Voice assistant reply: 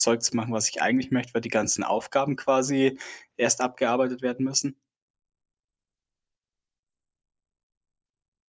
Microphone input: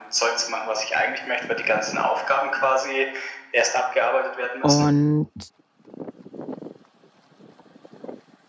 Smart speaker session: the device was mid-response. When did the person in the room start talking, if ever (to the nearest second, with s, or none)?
5 s